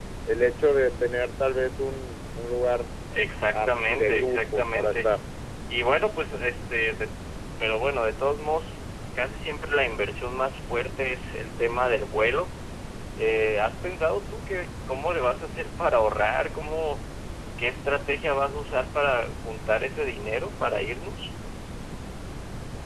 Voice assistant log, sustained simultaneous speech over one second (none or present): present